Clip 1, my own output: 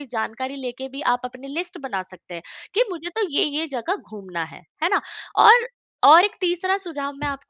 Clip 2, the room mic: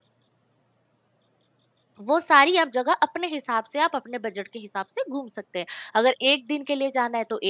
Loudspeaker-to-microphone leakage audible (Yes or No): No